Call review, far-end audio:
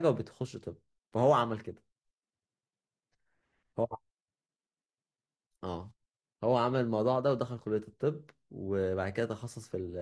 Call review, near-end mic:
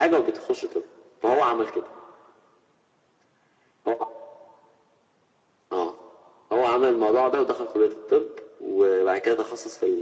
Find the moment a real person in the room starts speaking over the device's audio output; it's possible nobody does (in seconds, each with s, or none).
none